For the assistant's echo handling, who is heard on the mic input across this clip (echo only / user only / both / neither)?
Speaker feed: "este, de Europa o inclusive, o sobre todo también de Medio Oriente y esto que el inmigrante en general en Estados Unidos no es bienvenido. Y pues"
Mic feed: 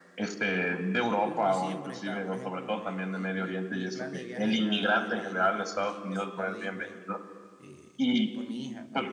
both